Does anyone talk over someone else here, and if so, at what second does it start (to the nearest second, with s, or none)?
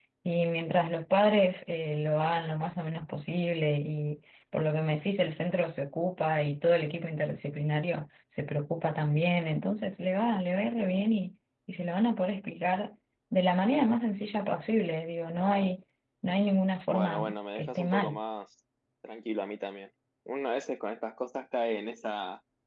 17 s